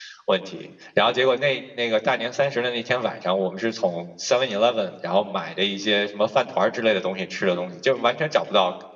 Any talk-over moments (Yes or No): No